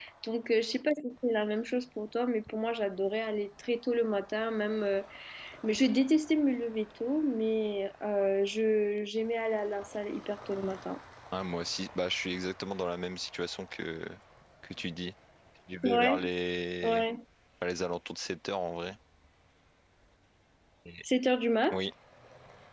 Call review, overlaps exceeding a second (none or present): none